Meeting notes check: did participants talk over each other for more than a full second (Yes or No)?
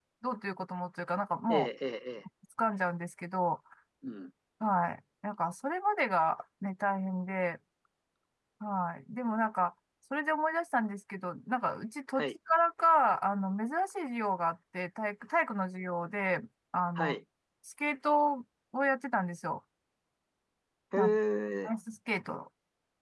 No